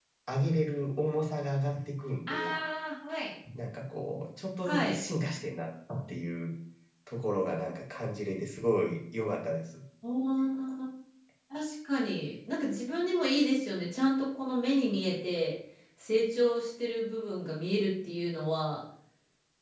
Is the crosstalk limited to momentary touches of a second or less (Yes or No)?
Yes